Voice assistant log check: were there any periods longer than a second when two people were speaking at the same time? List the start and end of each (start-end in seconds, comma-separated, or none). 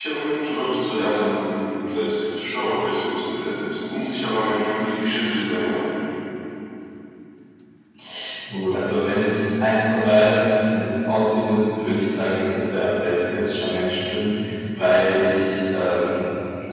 none